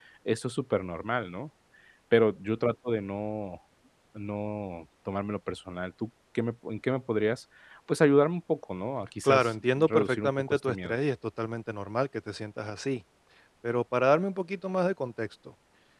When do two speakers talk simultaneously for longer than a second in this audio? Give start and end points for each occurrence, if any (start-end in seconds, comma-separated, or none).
9.2-10.9